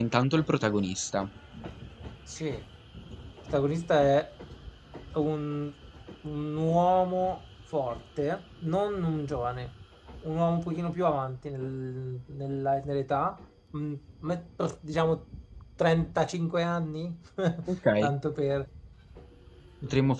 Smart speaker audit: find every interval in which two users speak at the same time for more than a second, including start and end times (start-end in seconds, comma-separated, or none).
none